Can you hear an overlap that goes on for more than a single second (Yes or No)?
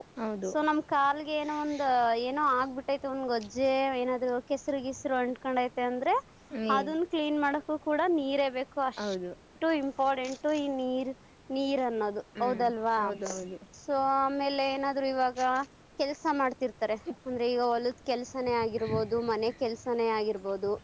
No